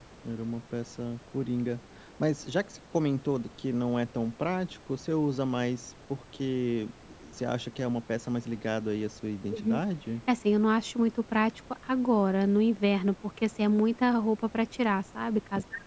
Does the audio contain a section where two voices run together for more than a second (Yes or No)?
No